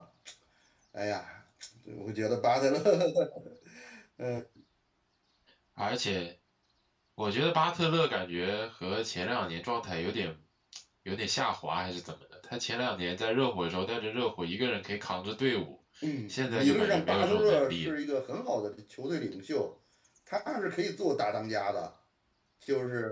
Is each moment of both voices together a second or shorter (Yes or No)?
No